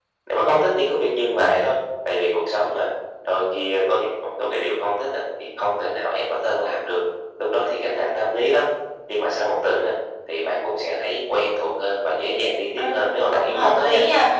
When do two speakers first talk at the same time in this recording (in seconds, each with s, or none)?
12.8 s